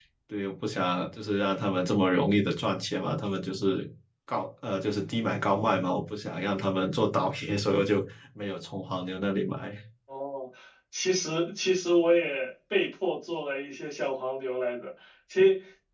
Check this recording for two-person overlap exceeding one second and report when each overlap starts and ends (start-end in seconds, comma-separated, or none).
none